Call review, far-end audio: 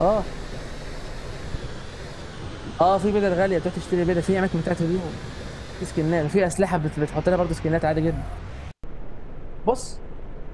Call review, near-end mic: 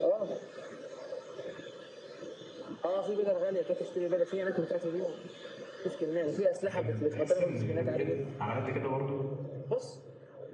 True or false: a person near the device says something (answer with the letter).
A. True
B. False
A